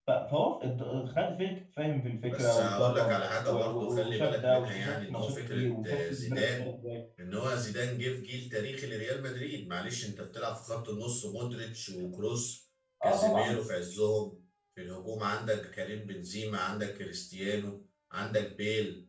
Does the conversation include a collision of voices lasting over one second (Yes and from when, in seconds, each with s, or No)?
Yes, from 2.3 s